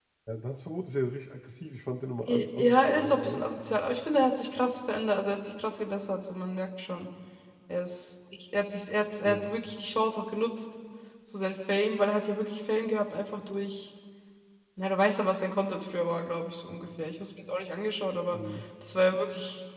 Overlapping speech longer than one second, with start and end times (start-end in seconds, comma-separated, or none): 2.2-3.5